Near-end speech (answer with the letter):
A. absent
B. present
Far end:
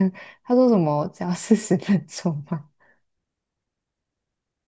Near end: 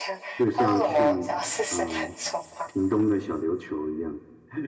B